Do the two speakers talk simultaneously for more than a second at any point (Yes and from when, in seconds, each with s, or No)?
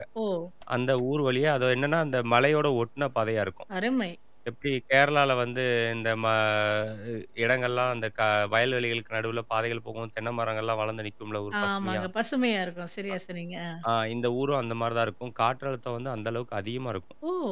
No